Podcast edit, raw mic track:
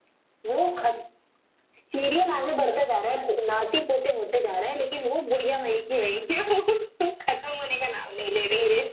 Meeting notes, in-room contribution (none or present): none